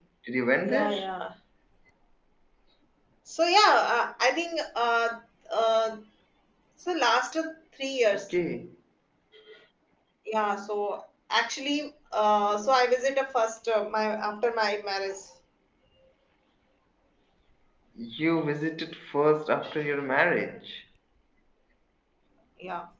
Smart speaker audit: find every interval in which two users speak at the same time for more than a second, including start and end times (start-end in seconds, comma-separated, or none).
none